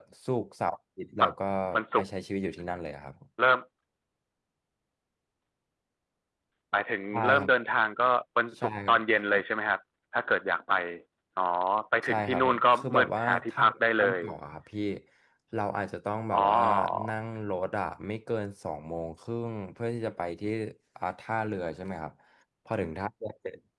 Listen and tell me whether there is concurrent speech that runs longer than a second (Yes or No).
Yes